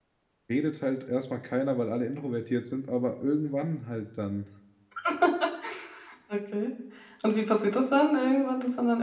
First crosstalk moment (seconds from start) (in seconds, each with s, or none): none